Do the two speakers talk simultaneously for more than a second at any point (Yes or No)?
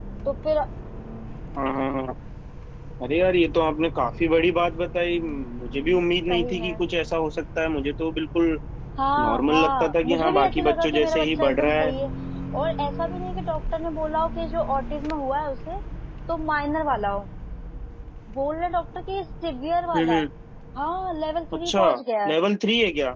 Yes